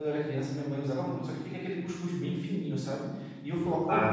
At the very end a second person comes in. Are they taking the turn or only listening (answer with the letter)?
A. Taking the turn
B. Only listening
B